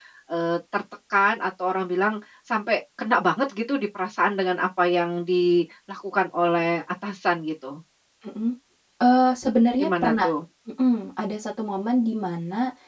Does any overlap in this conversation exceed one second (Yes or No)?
No